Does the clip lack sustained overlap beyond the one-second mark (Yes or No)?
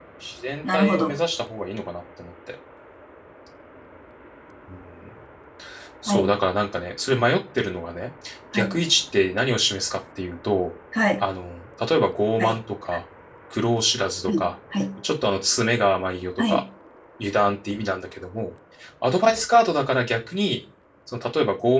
Yes